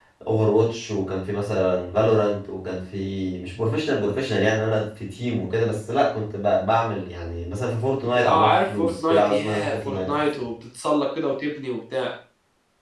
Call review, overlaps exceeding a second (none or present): present